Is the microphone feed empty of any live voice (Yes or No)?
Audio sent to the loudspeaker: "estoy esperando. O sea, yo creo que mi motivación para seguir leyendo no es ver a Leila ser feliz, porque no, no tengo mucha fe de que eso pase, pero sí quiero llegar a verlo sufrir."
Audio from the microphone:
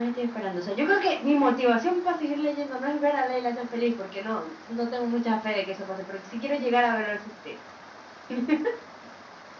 Yes